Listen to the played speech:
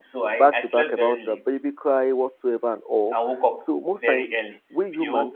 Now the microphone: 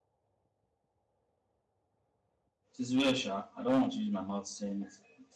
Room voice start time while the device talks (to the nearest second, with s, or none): 3 s